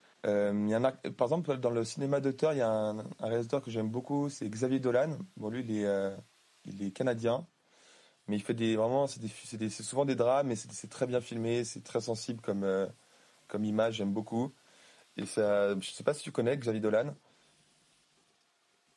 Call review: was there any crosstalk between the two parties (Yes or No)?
No